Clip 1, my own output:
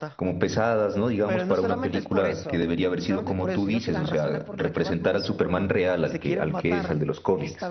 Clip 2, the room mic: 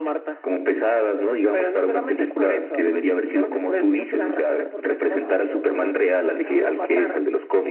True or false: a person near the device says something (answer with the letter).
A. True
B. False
A